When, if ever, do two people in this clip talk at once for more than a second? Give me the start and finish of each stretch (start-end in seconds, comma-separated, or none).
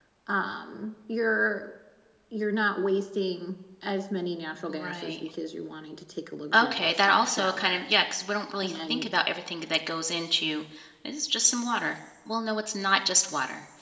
6.5-7.8